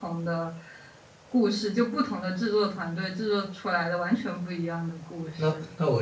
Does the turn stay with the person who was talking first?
No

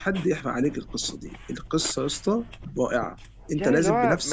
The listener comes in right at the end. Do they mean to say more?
Yes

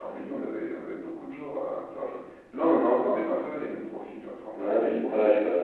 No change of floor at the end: No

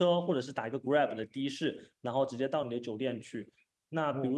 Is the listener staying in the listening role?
Yes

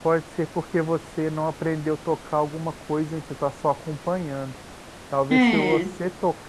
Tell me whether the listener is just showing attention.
Yes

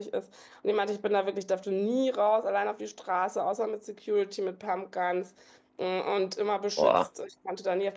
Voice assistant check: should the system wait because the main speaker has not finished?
Yes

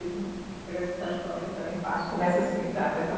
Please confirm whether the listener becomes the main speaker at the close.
Yes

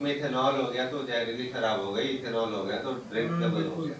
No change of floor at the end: No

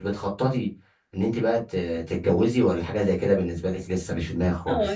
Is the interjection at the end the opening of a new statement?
Yes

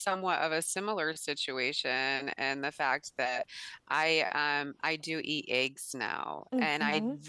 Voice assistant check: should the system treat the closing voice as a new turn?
No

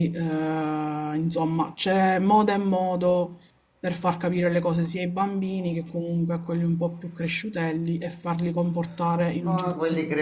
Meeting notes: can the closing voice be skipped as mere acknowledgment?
No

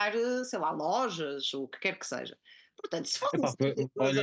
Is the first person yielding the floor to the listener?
Yes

